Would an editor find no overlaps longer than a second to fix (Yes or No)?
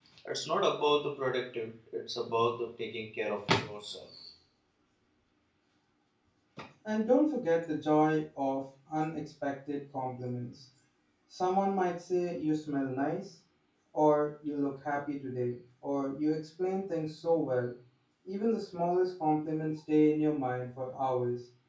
Yes